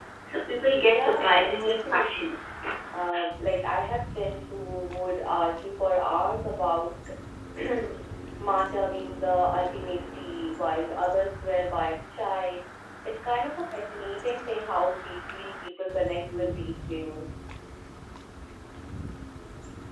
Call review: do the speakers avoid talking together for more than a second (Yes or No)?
No